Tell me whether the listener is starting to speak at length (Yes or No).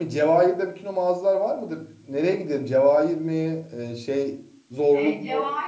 Yes